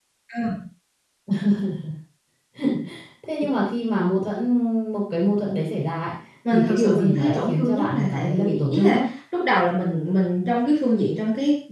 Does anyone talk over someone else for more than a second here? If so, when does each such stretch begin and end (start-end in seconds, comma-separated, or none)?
6.5-9.0